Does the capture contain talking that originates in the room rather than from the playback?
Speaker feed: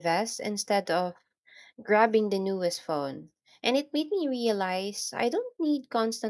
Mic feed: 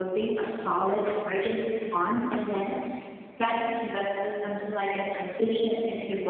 Yes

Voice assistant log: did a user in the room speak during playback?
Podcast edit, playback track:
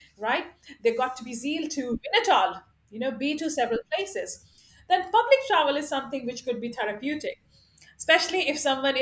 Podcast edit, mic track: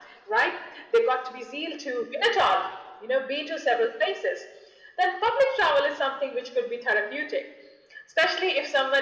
No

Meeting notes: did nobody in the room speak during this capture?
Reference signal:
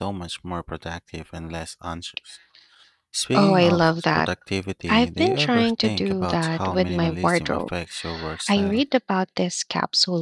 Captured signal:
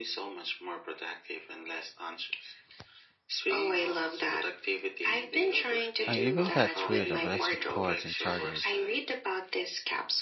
No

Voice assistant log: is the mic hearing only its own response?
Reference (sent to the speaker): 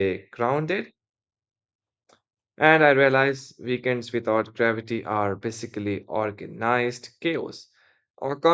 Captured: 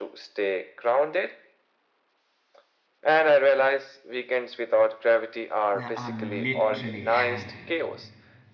No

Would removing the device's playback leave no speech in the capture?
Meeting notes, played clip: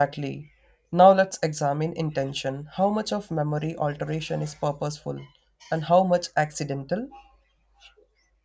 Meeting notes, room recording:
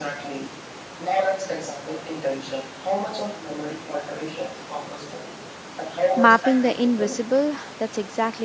No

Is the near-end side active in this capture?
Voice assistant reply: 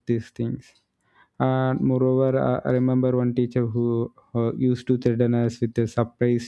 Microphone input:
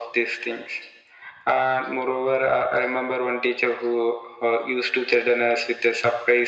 No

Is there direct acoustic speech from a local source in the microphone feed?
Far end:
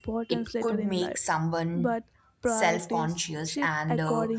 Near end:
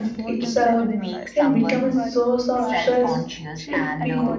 Yes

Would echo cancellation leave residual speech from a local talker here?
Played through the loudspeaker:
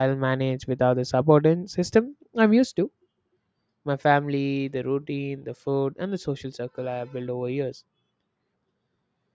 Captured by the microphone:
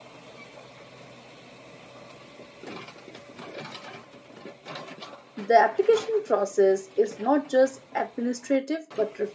Yes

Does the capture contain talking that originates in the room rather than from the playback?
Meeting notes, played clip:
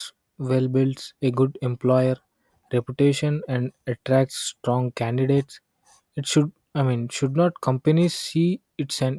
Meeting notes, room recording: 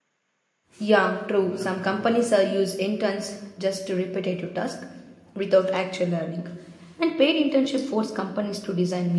Yes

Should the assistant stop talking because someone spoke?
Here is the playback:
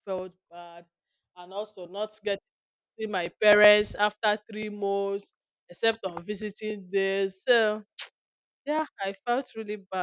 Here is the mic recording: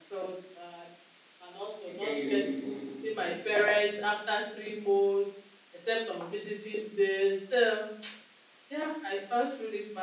Yes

